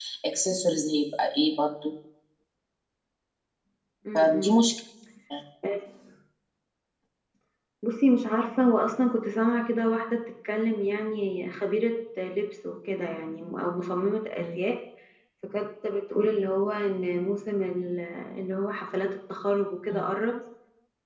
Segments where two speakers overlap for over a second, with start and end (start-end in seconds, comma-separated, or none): none